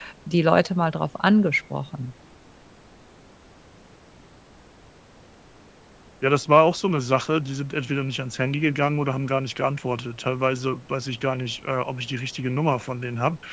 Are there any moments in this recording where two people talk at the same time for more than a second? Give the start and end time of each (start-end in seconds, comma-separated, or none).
none